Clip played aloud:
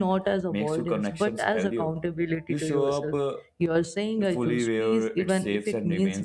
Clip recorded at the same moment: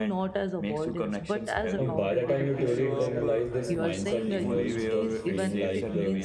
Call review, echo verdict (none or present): present